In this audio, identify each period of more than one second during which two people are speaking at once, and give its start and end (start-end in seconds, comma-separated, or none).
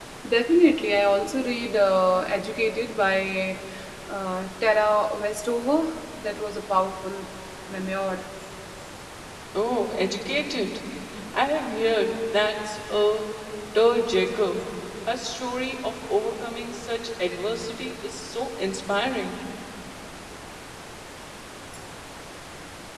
none